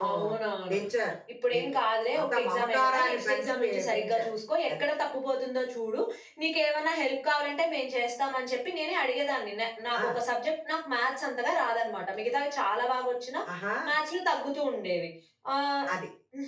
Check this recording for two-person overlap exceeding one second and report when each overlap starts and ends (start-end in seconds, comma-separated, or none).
2.2-4.2